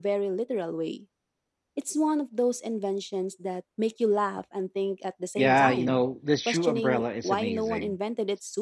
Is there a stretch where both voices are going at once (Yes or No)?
Yes